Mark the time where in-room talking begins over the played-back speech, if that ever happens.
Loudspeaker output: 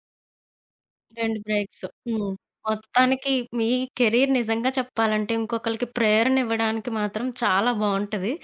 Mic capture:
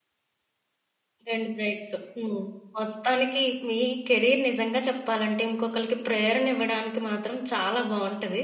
none

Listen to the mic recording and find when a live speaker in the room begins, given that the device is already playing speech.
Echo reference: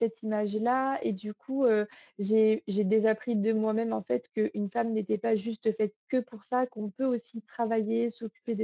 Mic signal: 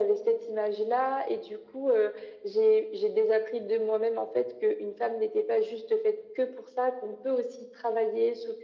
none

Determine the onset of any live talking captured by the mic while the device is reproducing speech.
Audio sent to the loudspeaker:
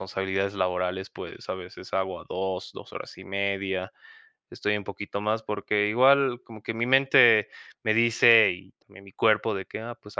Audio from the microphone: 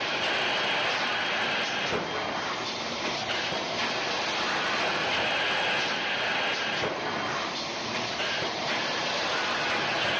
none

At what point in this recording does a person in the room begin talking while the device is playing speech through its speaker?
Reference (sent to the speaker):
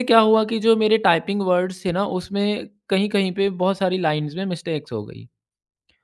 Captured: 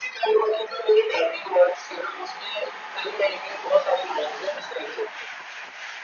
none

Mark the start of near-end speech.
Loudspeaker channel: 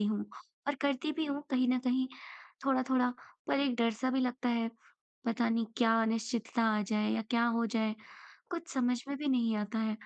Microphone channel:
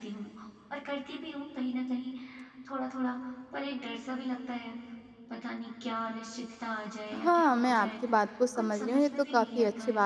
7.1 s

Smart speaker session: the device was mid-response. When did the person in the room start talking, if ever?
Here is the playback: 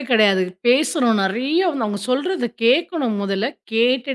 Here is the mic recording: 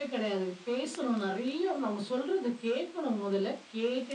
none

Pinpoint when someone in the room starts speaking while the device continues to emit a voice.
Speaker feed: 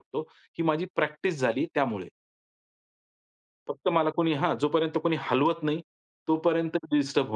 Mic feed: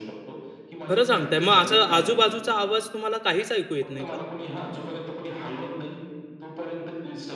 0.9 s

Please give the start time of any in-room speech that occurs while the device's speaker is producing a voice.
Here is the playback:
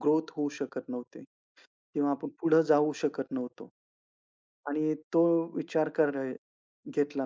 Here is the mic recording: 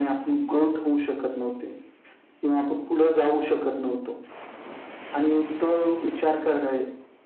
none

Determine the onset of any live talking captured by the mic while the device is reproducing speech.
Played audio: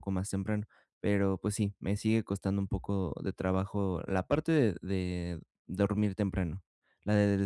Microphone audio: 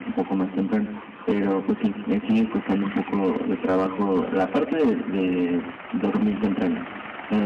none

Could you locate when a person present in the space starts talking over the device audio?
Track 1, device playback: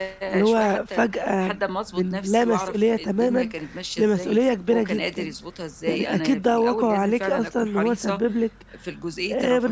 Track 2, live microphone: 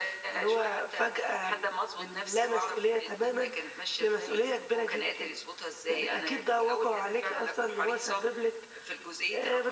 none

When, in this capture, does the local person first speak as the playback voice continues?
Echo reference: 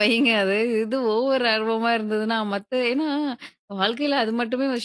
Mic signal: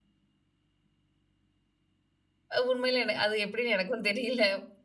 2.5 s

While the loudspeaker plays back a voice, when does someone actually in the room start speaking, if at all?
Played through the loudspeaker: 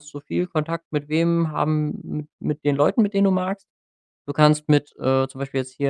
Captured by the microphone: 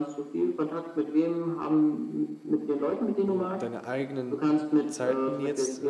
3.2 s

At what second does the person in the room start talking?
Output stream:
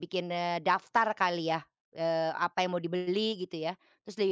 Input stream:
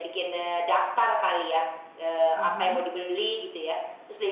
2.4 s

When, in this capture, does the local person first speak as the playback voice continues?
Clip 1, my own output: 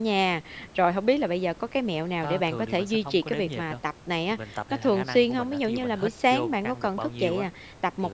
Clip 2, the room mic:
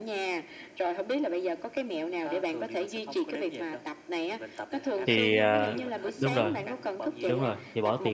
5.1 s

